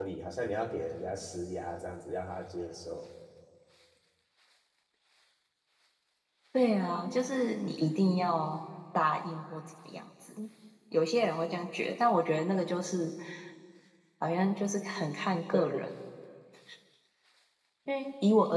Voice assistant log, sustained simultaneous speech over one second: none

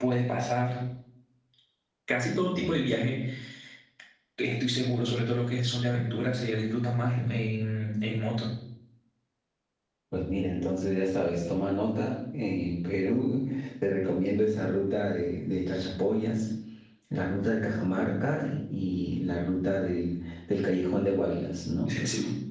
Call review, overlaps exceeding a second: none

